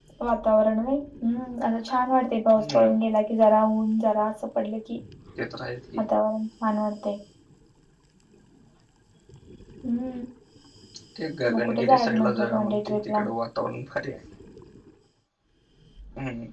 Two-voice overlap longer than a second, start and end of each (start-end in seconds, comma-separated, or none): 11.5-13.2